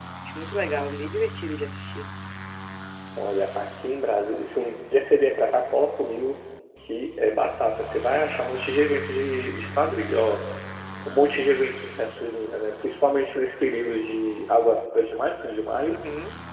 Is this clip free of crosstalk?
Yes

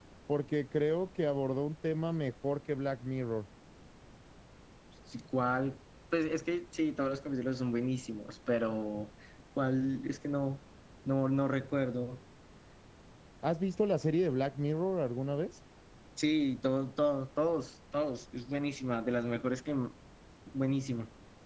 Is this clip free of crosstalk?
Yes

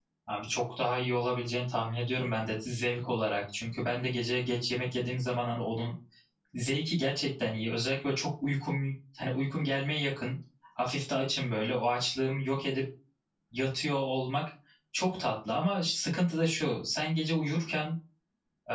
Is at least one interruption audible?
No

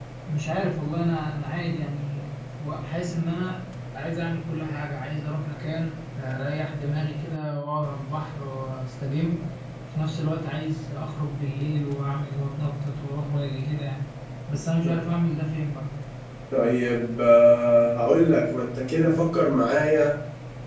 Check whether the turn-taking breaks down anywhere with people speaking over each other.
No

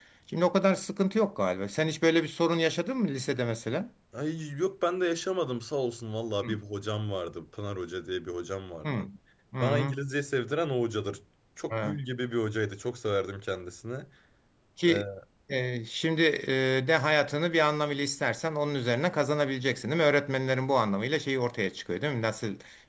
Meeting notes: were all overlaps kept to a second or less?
Yes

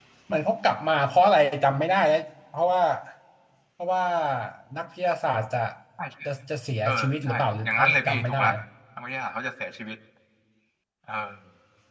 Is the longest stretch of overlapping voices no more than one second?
No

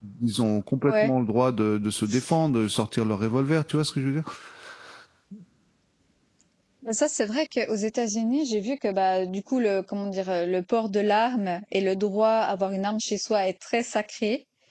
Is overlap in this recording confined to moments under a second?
Yes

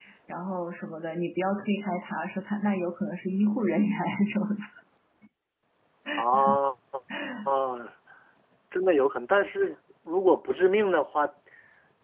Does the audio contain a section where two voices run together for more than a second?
No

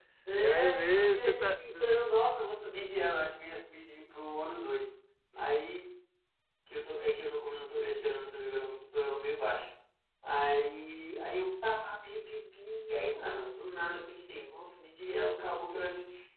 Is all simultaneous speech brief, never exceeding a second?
No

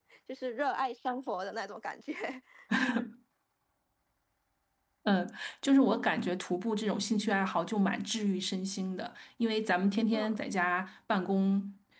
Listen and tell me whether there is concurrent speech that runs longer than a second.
No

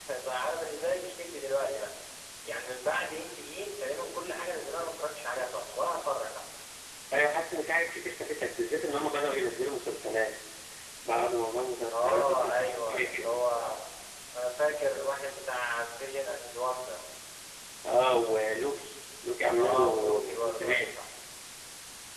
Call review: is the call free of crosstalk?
No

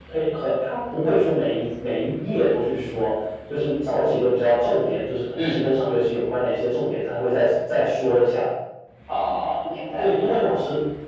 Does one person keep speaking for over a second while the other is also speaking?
No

